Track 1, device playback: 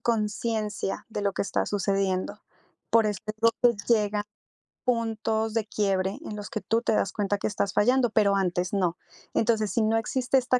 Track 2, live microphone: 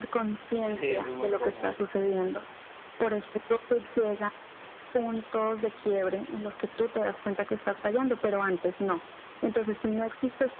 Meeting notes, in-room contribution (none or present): present